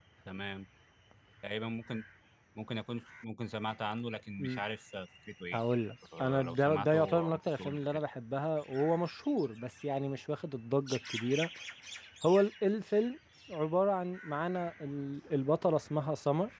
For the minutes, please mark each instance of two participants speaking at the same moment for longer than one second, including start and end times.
6.2-8.0

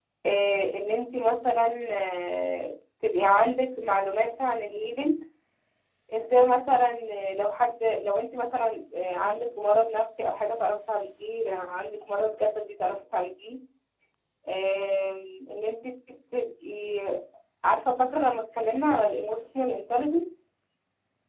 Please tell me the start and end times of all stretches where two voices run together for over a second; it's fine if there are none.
none

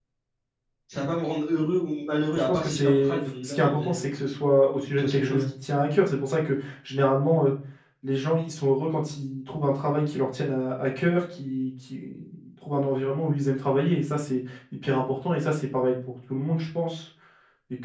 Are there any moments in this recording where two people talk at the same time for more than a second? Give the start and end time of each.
2.4-4.0

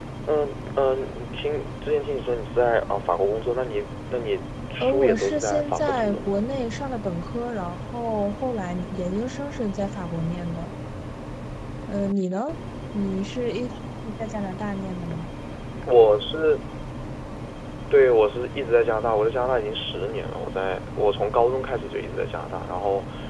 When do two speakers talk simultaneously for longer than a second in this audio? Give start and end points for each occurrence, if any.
4.7-6.3

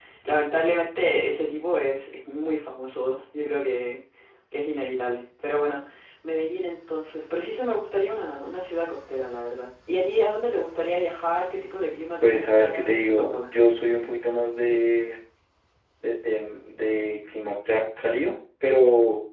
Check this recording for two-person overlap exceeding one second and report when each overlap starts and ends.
12.2-13.5

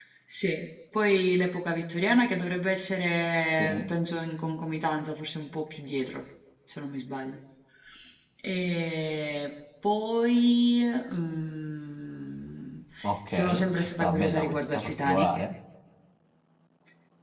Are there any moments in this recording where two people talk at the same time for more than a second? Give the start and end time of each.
13.3-15.4

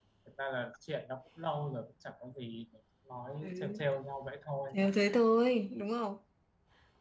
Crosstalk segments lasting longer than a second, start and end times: none

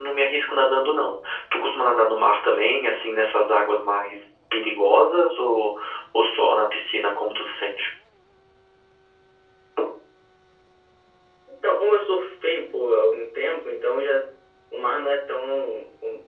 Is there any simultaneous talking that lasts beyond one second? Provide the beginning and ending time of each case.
none

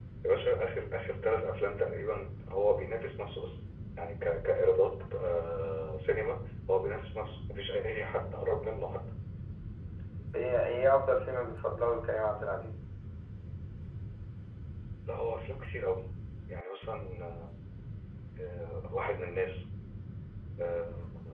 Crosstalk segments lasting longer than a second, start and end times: none

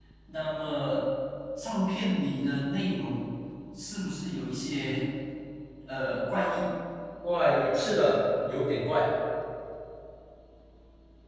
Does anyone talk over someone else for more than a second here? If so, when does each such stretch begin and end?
none

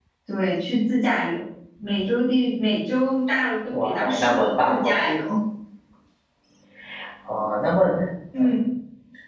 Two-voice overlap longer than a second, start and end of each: 3.7-5.0

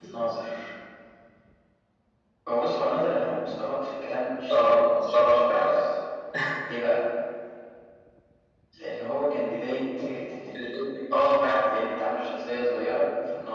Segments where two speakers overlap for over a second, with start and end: 4.5-5.8

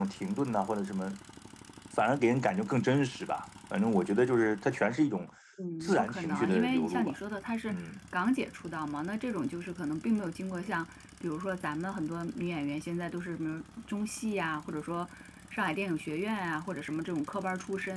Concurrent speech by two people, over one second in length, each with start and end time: 5.8-7.2

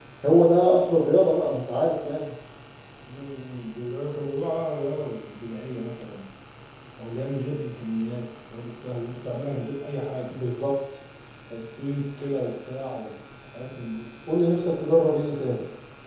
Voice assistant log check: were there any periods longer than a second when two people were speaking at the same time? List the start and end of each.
none

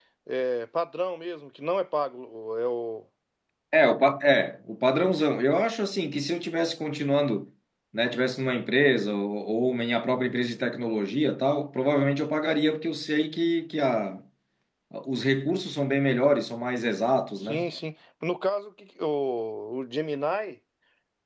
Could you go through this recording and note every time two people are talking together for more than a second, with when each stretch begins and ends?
none

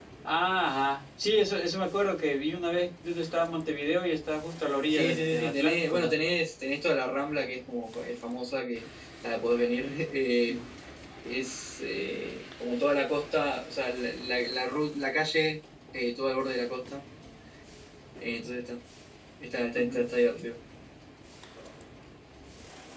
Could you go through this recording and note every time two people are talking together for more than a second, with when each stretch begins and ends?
4.9-6.1

